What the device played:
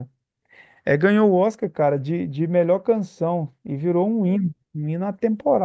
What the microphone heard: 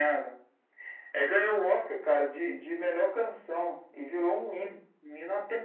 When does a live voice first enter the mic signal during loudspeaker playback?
none

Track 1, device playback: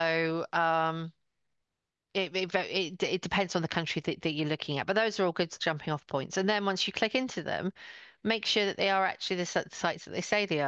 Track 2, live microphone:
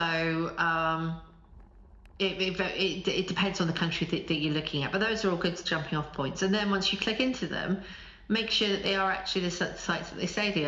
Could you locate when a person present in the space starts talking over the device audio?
none

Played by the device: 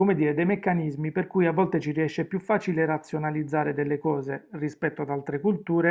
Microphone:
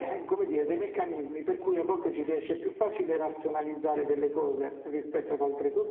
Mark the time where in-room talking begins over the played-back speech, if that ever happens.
none

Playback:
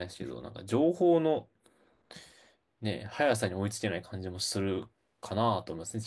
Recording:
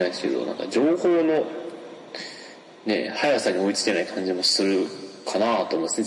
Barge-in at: none

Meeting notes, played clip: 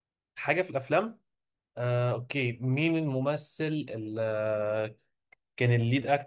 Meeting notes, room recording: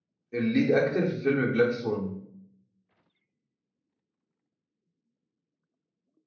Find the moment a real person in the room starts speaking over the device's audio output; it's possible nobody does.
0.3 s

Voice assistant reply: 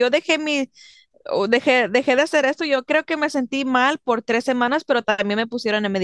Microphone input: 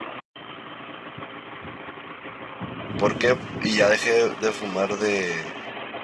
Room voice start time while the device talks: 3.0 s

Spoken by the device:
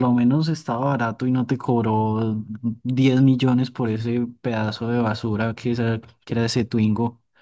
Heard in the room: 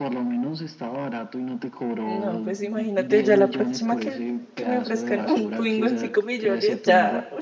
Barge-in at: 2.0 s

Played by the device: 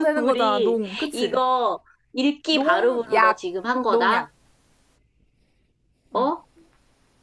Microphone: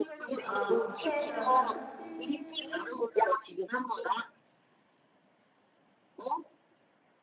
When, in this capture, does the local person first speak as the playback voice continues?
0.3 s

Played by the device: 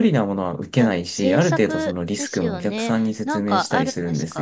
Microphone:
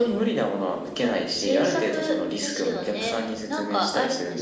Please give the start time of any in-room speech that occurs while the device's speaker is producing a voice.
none

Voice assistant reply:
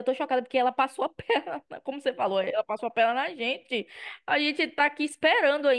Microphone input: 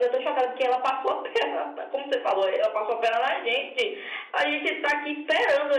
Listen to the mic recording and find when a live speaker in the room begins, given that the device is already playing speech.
none

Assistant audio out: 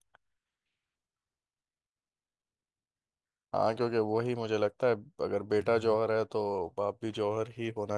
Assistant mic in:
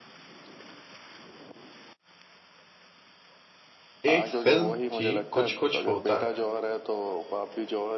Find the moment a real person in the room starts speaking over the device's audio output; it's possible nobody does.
4.1 s

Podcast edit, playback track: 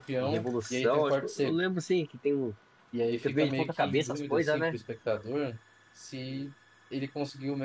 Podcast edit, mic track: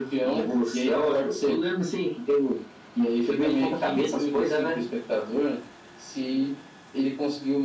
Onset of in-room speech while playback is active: none

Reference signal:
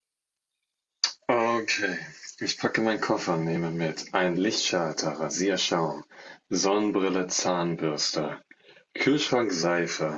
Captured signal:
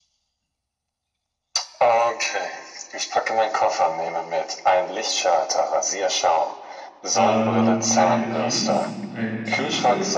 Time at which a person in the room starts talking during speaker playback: 7.1 s

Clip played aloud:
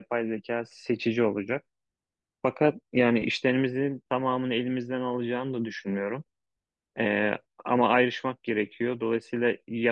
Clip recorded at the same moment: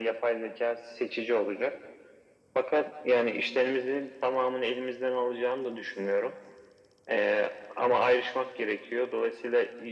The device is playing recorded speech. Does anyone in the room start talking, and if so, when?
none

